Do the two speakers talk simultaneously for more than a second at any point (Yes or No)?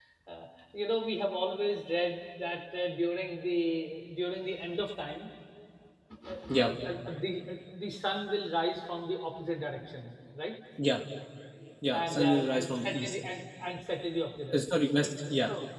Yes